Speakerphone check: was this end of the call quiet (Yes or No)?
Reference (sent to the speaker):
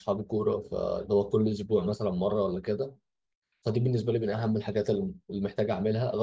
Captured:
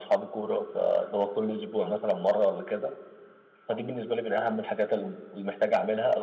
Yes